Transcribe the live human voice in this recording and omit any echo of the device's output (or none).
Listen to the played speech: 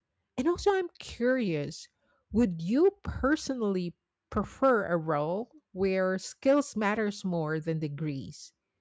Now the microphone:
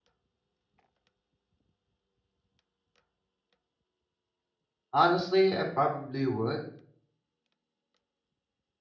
Honestly, I probably would.